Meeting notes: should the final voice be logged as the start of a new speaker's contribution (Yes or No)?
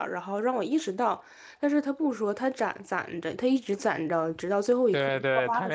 Yes